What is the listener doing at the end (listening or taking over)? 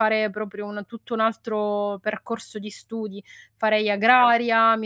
listening